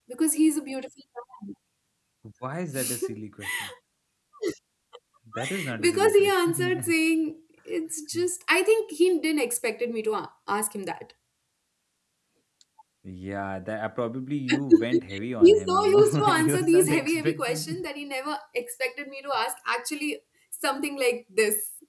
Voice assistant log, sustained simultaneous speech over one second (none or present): present